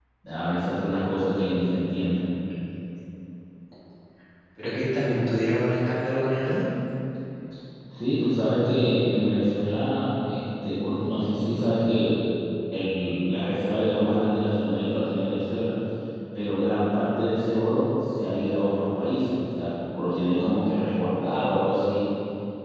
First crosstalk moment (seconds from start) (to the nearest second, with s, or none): none